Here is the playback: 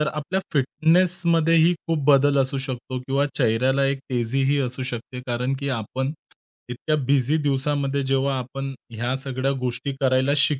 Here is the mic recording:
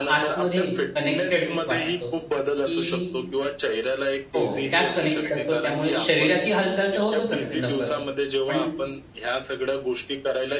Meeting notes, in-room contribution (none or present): present